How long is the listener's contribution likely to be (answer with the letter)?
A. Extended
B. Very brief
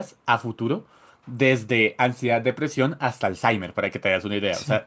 A